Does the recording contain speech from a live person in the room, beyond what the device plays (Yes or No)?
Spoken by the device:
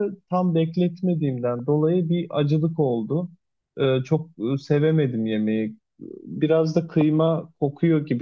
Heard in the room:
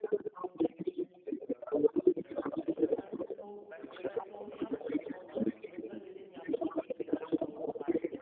Yes